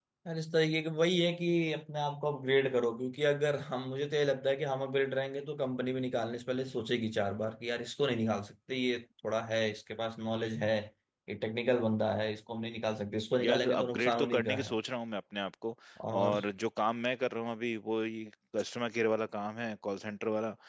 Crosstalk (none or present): present